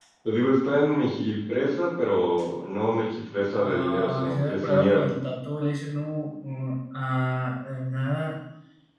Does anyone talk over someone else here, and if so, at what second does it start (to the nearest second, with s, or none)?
4 s